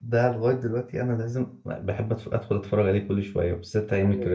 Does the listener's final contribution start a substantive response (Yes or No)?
Yes